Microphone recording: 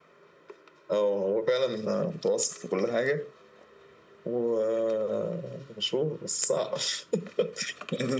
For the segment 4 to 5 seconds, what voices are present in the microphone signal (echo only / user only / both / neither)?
echo only